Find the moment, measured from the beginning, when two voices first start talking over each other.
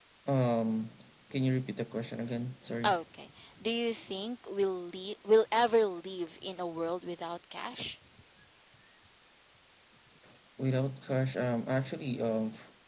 none

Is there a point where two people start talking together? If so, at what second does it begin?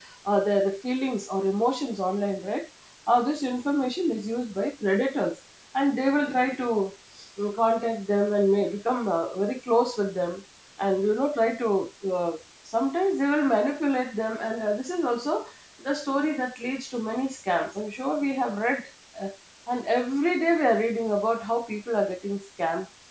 none

